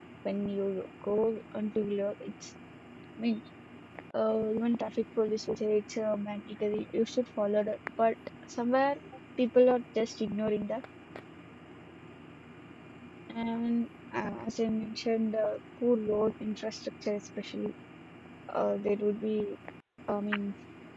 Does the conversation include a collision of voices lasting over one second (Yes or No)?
No